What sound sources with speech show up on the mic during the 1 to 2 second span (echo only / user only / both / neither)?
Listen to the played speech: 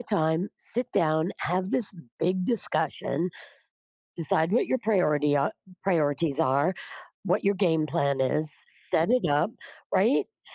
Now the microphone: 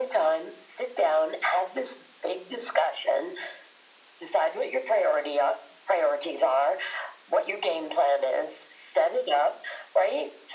echo only